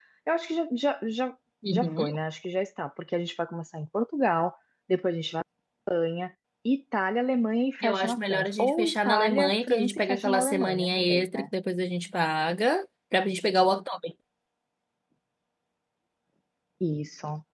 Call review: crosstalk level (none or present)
present